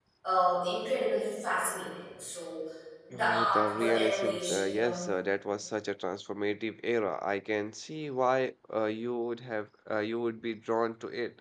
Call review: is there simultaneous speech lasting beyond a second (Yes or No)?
Yes